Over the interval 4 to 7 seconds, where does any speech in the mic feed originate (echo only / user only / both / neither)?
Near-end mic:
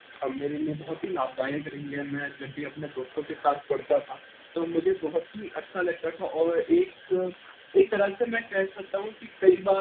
echo only